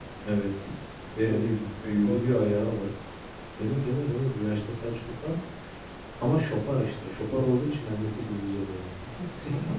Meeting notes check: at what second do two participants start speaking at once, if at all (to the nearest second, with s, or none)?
1 s